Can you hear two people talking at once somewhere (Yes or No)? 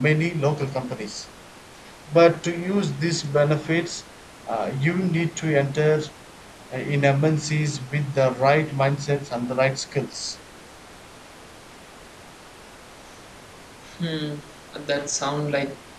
No